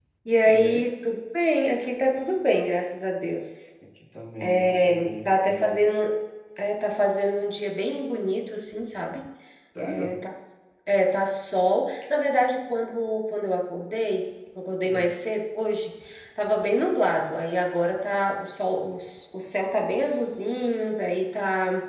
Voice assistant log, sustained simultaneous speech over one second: present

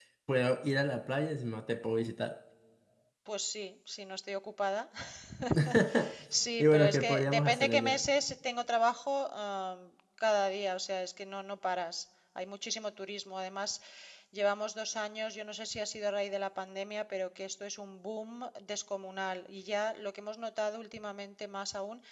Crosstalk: present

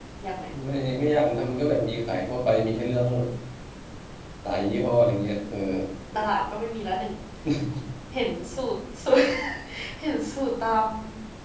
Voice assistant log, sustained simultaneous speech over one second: none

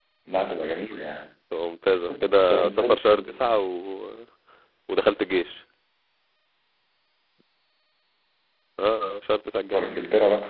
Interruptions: present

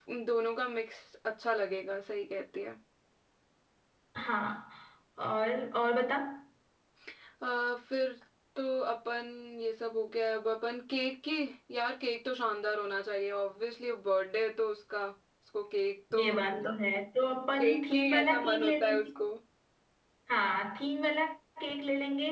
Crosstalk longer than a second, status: present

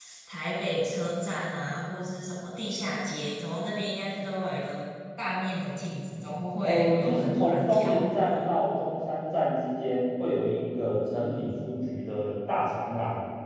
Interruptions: present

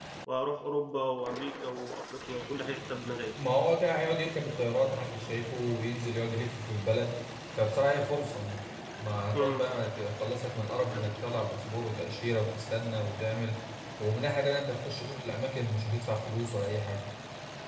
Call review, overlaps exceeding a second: none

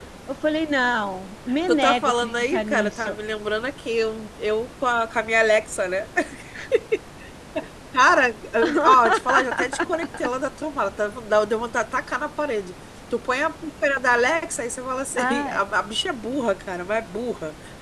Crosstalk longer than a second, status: present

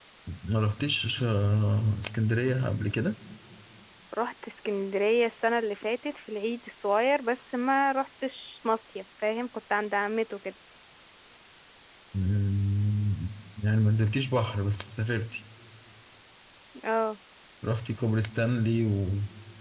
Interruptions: none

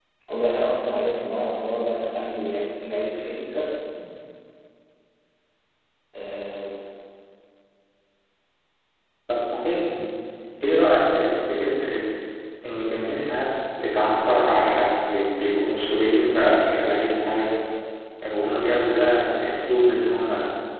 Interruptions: none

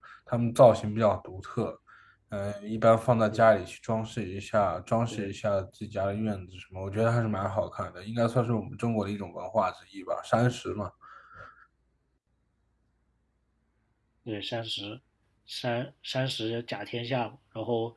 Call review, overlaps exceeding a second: none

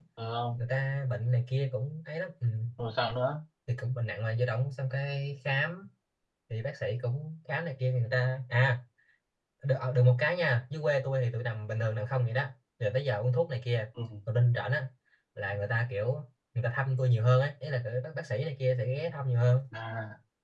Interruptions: none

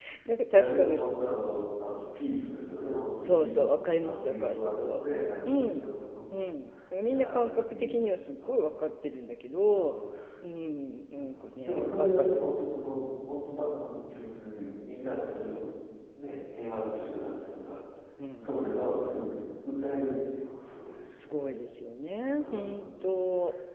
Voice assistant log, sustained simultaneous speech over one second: present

